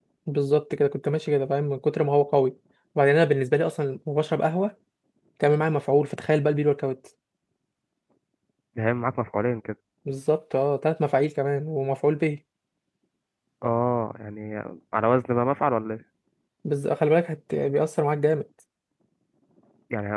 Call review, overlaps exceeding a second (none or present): none